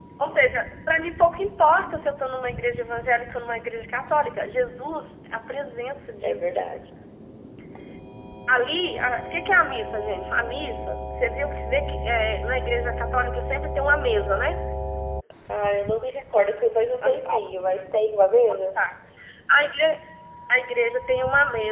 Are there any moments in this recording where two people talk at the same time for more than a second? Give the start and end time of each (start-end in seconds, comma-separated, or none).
none